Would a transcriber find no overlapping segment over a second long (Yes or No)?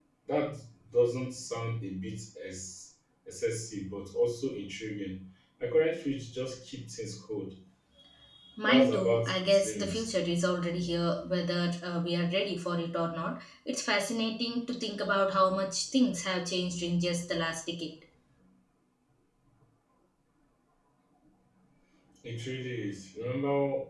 No